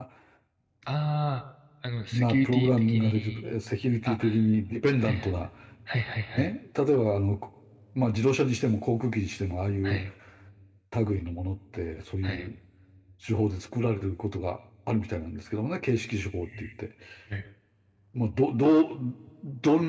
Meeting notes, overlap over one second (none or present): present